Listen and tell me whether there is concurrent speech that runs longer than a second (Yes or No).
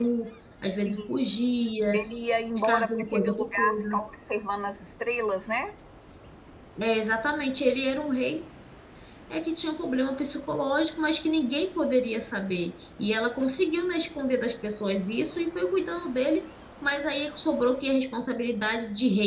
Yes